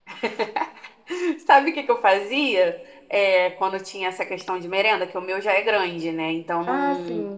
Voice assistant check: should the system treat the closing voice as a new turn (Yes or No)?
No